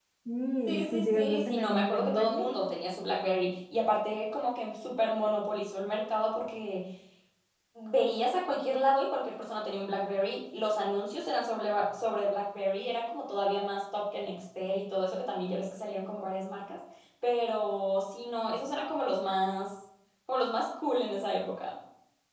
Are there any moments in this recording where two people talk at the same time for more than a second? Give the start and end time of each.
0.7-2.4

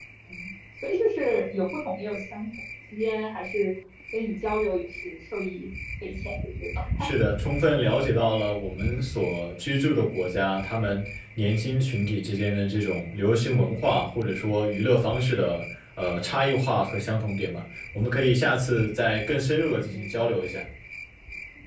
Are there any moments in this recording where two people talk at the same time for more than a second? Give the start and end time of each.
none

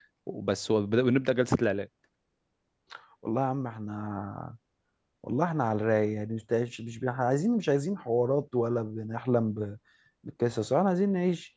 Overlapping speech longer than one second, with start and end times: none

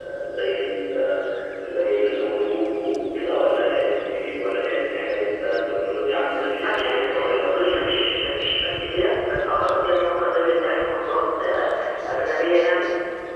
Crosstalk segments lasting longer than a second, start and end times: 6.6-8.0

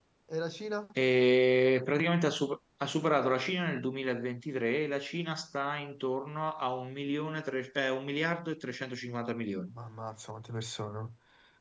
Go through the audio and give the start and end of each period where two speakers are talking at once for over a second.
none

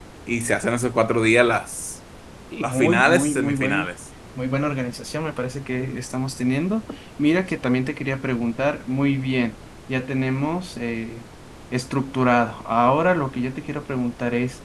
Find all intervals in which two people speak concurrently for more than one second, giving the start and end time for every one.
2.6-3.9

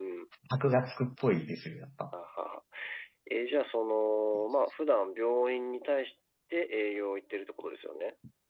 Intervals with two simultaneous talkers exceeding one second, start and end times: none

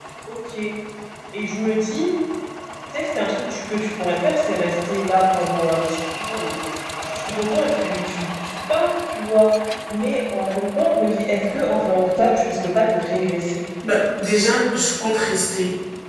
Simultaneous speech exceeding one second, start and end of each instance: none

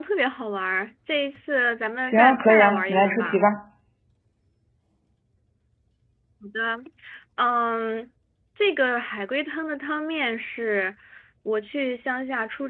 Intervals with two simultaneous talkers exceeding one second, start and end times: 2.0-3.4

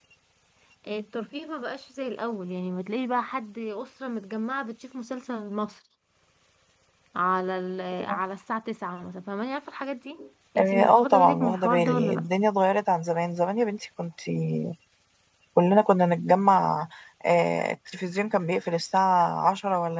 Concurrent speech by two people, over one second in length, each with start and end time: 10.6-12.2

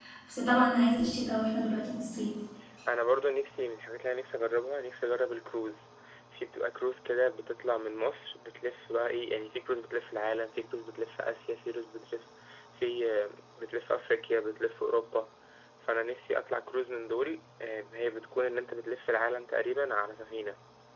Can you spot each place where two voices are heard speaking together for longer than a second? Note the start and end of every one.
none

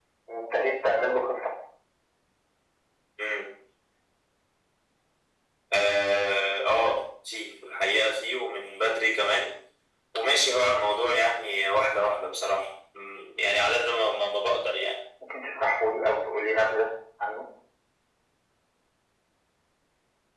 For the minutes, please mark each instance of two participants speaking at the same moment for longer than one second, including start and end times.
none

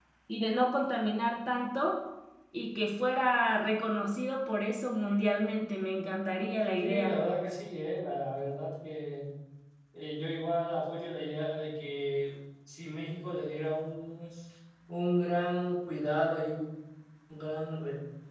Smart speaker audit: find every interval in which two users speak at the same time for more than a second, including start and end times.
none

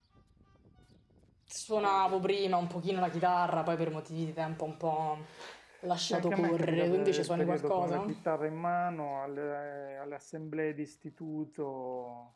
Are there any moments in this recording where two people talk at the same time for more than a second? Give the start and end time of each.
6.1-8.0

